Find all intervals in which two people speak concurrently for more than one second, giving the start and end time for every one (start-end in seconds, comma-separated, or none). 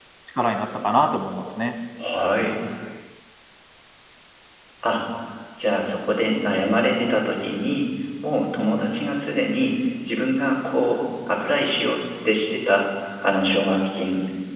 none